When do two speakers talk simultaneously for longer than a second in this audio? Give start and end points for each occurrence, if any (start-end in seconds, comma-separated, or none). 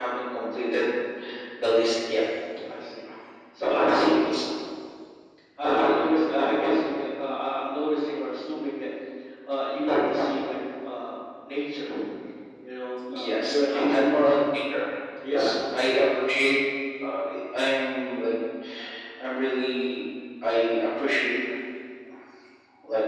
13.1-14.4